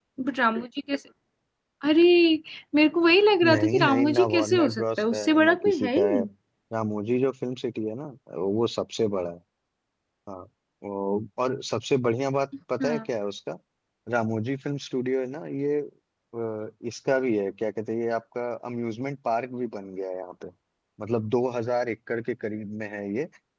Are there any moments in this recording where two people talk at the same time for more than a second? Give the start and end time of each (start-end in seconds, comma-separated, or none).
3.5-6.2